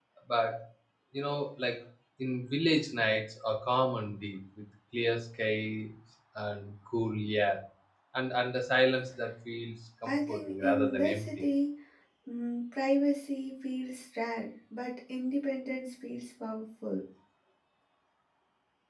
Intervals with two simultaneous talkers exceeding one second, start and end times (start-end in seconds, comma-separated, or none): 10.1-11.3